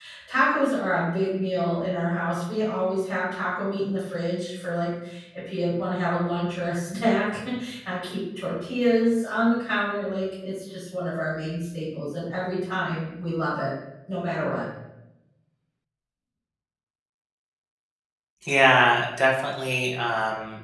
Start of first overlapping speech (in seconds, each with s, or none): none